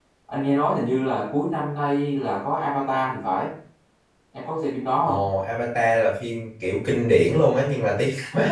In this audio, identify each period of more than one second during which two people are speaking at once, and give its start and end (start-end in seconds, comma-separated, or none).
none